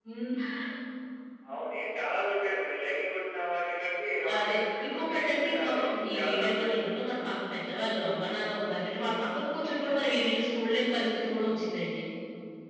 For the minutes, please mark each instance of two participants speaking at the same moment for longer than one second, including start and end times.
4.4-6.9

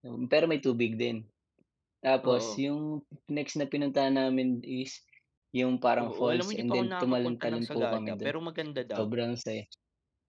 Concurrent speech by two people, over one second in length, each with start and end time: 6.0-8.3

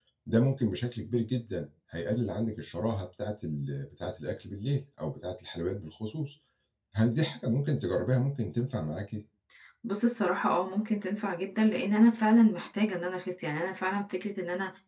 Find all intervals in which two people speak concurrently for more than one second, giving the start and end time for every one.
none

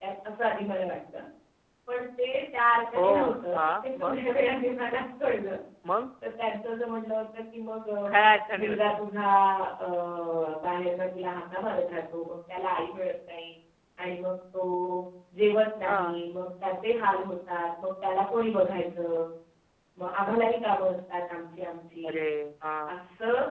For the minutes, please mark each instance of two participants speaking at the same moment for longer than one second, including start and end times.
3.0-4.2

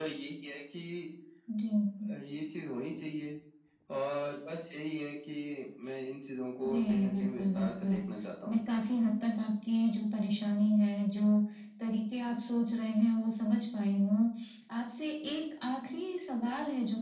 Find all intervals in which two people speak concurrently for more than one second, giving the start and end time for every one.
6.7-7.9

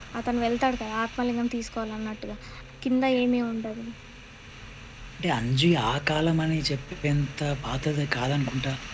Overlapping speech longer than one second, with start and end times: none

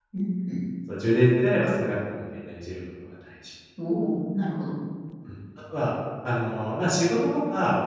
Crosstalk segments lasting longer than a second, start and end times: none

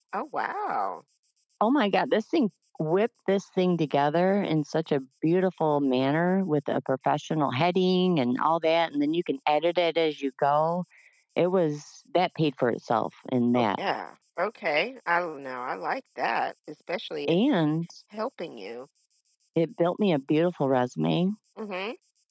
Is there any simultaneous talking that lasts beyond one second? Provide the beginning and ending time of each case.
none

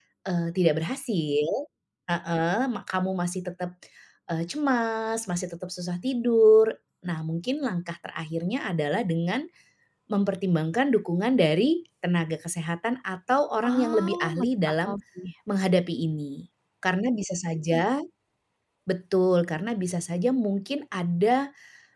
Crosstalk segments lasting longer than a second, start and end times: 13.6-15.0

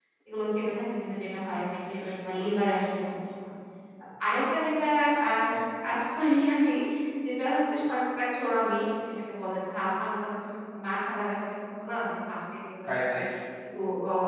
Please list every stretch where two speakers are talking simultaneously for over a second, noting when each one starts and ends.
1.5-2.8

